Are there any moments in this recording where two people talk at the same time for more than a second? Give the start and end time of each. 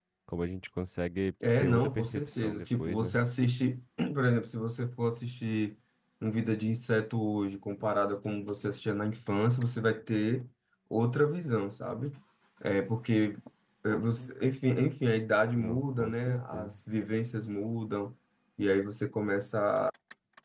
1.6-3.2, 15.6-16.8

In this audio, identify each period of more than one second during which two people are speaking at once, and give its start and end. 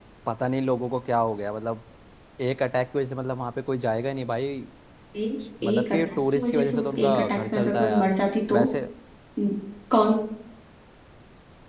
5.6-8.1

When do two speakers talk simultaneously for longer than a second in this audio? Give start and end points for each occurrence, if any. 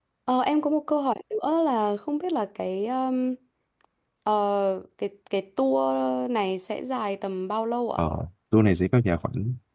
none

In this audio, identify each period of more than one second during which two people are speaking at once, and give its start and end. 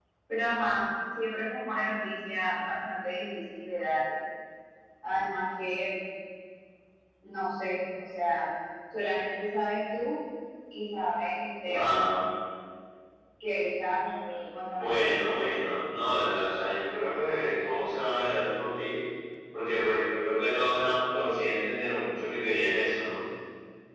none

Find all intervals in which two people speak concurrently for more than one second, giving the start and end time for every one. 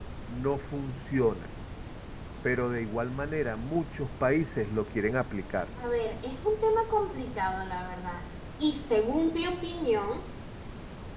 none

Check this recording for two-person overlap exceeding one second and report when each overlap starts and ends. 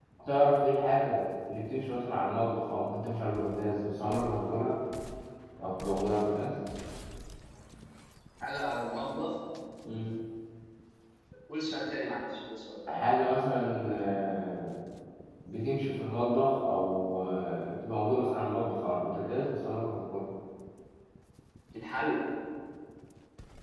none

